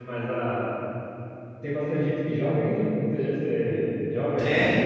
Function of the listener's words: taking over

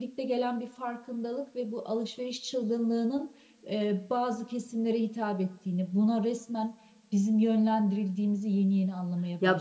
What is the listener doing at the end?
taking over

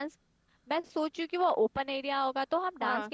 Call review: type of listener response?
listening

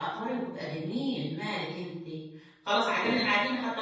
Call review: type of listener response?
listening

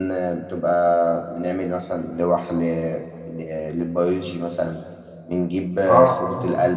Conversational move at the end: listening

